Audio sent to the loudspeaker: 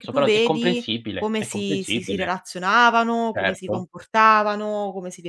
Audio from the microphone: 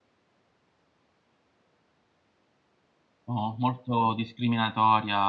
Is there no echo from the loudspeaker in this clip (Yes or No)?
Yes